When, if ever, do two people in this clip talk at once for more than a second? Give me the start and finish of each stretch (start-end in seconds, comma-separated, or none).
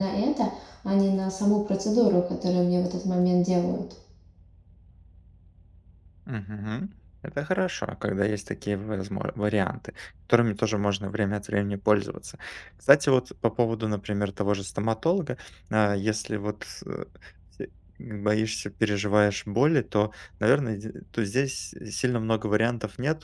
none